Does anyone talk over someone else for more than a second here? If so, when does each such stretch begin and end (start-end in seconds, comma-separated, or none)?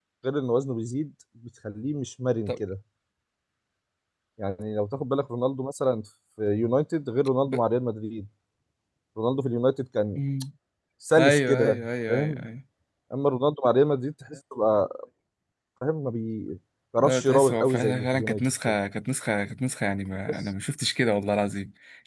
11.2-12.5, 17.0-18.8